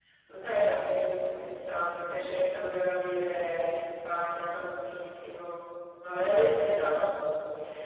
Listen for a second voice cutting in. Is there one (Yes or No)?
No